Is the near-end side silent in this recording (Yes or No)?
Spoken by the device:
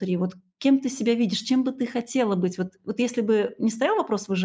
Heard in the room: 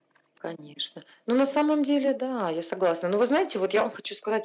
No